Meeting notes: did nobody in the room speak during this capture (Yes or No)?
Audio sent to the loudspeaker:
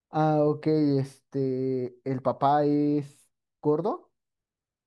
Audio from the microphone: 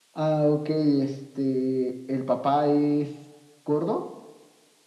Yes